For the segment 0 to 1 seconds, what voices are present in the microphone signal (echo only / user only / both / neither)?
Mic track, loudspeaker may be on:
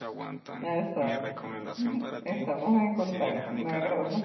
both